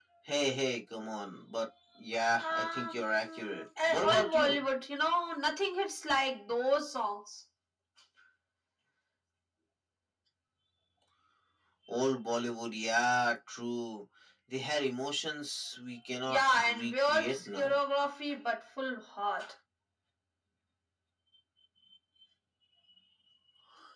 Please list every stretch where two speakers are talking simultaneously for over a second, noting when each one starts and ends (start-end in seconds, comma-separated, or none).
2.4-4.6, 16.3-17.8